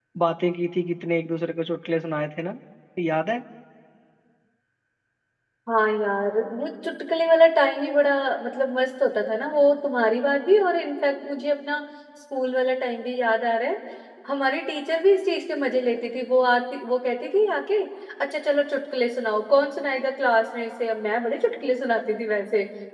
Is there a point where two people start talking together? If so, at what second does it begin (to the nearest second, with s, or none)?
none